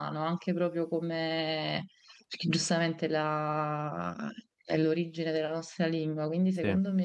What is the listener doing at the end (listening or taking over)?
listening